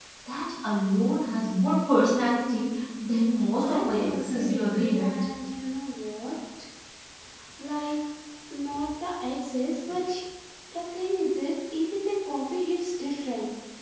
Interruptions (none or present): present